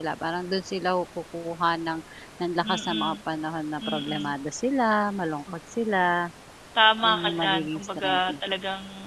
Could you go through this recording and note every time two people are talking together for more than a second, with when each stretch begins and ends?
7.0-8.3

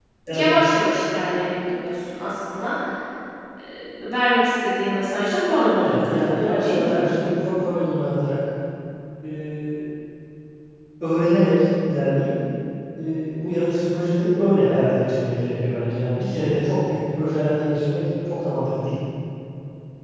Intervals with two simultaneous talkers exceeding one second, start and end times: 5.5-7.0

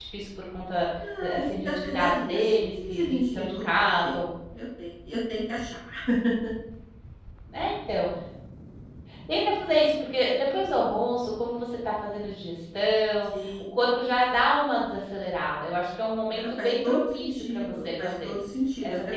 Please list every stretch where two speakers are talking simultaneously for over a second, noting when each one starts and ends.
1.2-4.2, 16.3-18.3

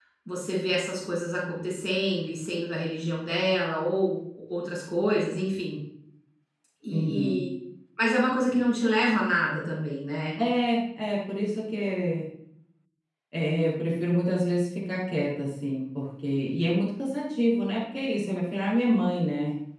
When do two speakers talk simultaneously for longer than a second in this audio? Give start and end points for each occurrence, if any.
none

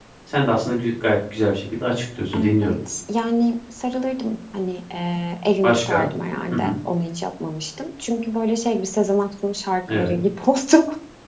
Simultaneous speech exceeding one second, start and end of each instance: none

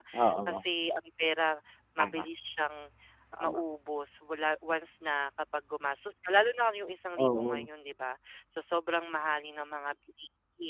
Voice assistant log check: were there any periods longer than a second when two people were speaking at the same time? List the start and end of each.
none

